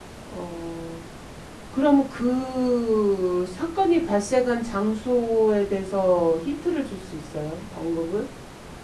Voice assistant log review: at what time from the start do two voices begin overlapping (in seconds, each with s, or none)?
none